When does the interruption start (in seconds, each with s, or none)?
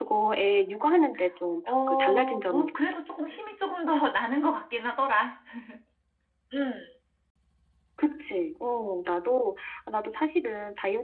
1.6 s